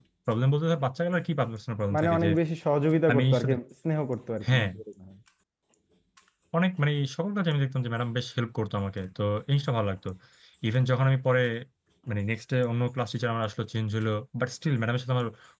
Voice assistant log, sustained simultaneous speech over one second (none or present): none